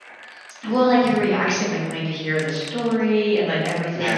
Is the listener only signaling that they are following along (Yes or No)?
Yes